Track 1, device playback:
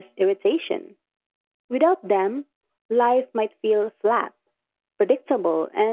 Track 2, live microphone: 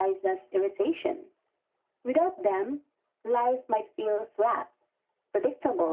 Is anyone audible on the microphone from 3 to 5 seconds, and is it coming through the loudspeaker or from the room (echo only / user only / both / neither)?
echo only